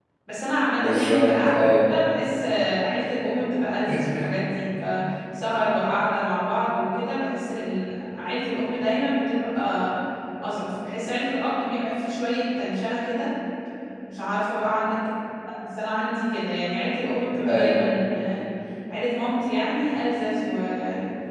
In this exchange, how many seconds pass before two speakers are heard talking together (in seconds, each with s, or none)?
0.8 s